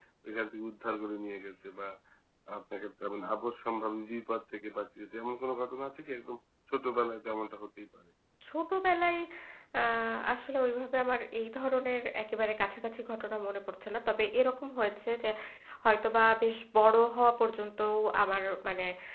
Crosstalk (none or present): none